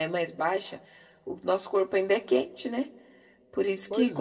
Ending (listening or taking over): listening